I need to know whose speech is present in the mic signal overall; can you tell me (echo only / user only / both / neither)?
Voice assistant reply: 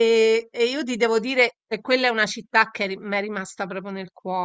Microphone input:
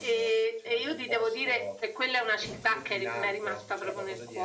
both